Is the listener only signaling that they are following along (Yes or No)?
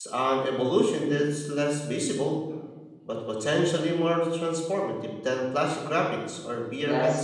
No